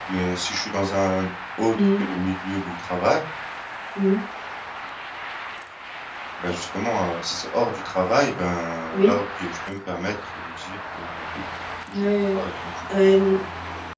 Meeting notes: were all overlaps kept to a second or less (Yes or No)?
Yes